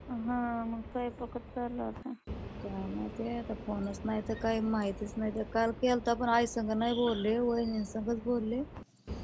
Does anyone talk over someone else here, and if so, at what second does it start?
none

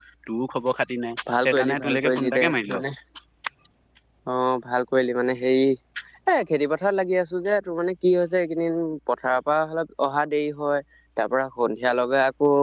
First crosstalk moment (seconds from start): 1.4 s

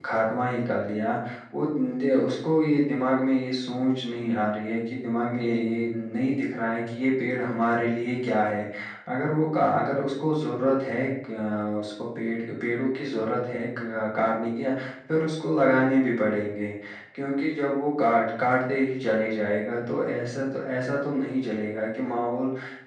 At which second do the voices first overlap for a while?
none

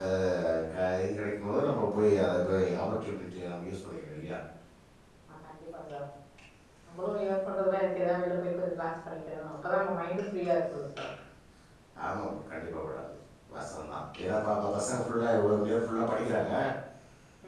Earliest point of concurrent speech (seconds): none

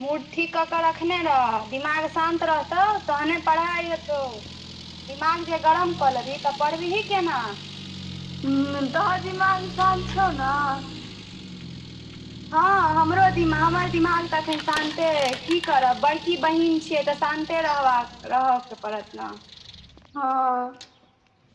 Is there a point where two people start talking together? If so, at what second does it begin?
none

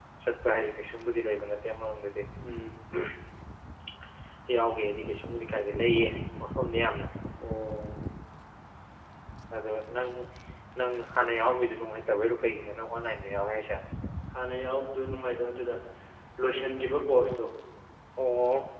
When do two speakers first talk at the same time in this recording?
none

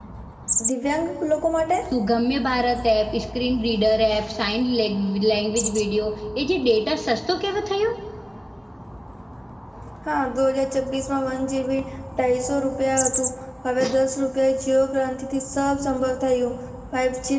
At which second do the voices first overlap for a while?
none

